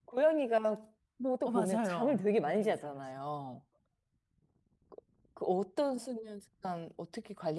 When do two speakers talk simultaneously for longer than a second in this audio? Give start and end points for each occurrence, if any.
1.4-3.1

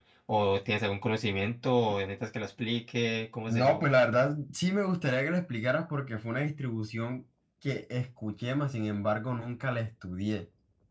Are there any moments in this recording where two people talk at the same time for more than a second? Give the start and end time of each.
none

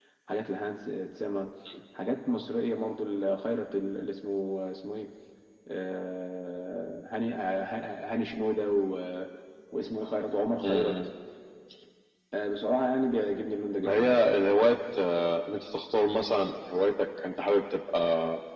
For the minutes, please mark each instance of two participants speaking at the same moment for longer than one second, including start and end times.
none

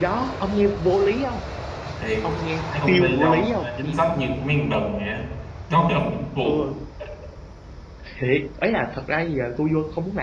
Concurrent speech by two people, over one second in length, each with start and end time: 2.7-3.9

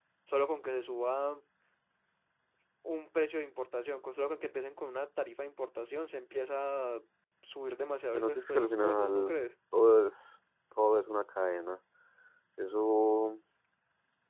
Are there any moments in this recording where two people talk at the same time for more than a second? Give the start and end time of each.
8.1-9.4

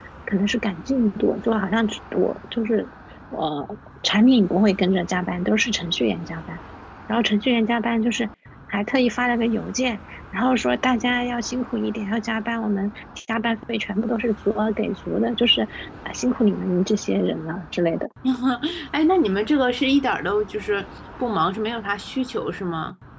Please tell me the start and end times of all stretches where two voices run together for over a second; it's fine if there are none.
none

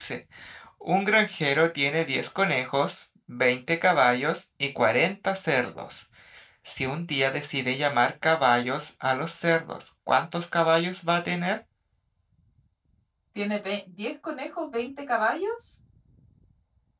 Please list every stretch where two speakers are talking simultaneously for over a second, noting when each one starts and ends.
none

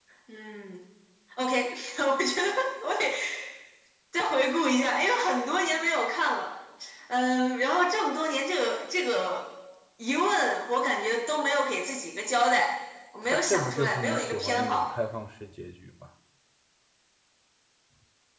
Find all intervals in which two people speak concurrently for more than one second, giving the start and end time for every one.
13.2-14.9

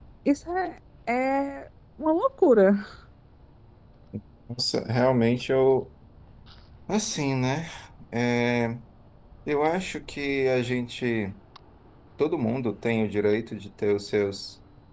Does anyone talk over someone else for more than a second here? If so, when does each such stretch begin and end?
none

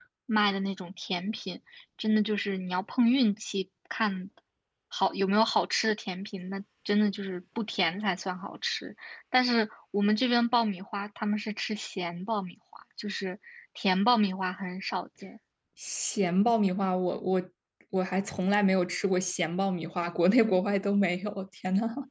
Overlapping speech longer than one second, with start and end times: none

